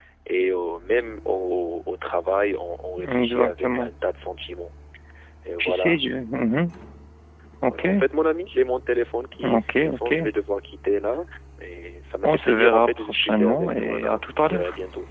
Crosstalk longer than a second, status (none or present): present